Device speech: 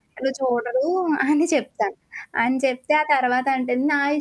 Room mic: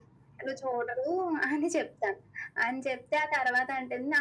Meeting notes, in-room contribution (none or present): none